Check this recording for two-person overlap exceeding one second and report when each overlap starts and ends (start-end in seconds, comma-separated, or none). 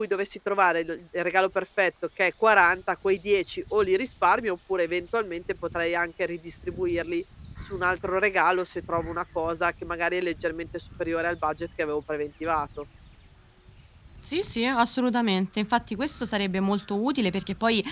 none